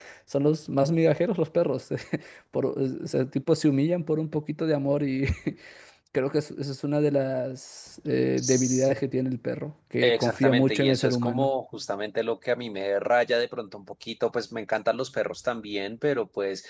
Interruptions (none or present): present